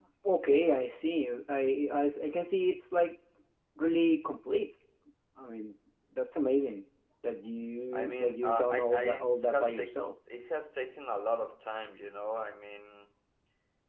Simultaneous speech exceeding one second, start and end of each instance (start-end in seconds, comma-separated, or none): 7.9-10.0